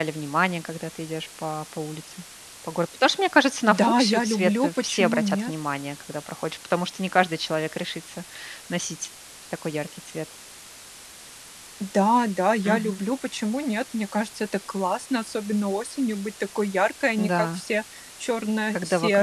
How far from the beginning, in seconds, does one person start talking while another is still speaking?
3.7 s

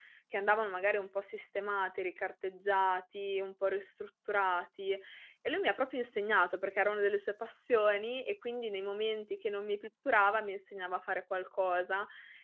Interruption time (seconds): none

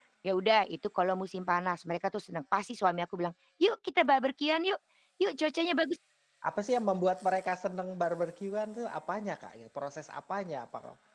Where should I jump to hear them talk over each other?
none

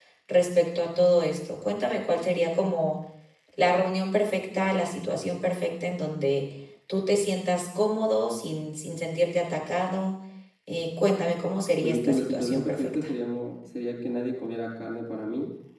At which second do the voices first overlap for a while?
11.8 s

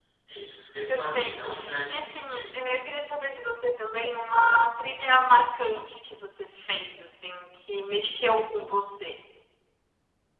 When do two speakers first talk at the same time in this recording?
0.9 s

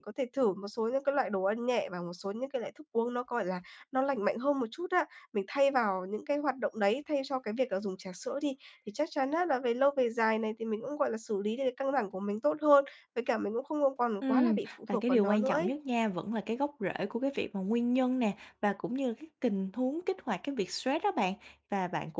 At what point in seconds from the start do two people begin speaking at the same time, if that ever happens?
14.2 s

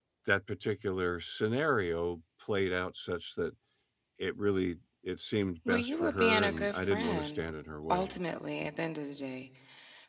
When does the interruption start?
5.7 s

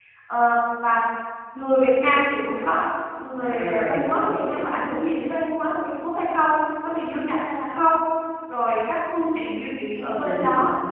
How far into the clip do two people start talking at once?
3.4 s

